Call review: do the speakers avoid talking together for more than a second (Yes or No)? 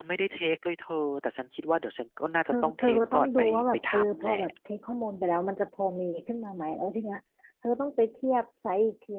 No